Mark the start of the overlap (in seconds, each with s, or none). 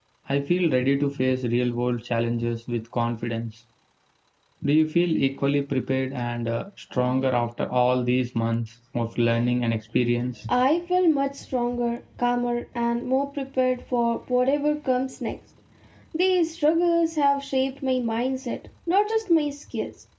none